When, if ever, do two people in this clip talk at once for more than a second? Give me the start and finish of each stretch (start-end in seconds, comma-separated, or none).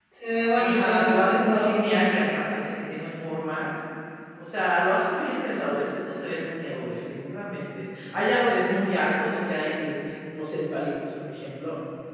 0.5-2.0